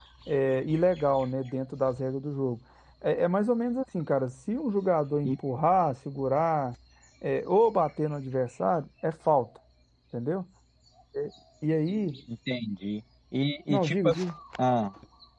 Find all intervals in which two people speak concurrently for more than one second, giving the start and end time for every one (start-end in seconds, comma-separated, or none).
none